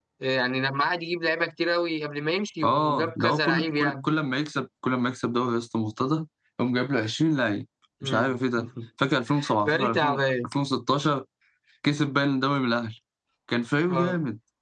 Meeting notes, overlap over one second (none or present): present